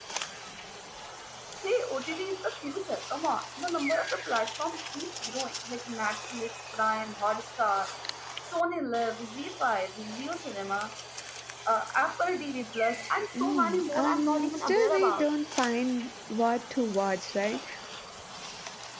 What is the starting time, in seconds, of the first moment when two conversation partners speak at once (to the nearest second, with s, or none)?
13 s